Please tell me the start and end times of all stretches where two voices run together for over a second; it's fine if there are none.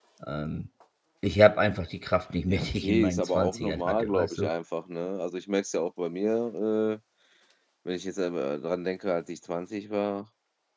2.5-4.5

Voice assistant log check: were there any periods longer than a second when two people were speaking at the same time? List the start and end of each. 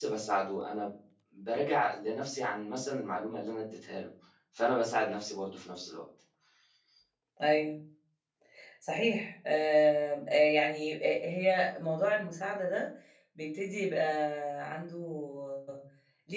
none

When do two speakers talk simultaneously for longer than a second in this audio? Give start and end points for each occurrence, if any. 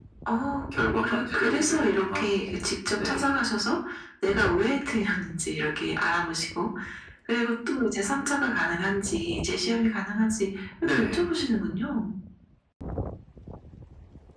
0.9-2.3

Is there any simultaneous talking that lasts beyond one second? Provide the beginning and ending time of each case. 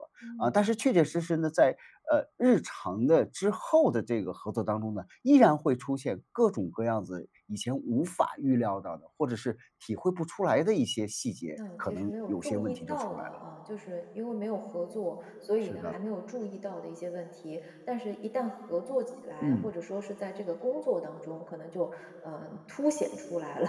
11.8-13.4

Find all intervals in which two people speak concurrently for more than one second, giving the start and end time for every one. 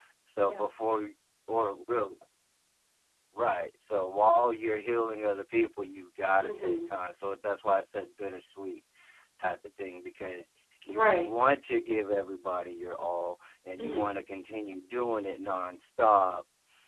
none

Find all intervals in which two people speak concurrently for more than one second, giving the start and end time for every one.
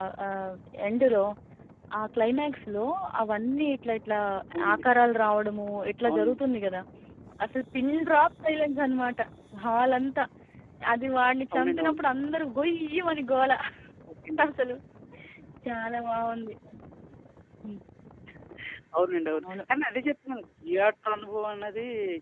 none

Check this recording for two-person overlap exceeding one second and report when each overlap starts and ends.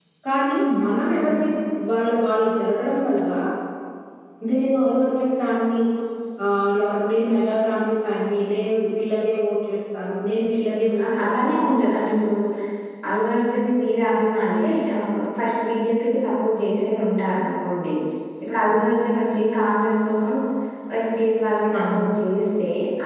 10.6-11.9

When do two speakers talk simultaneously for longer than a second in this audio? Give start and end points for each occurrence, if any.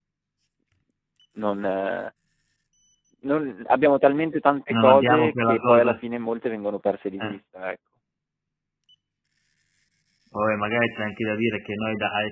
4.7-6.0

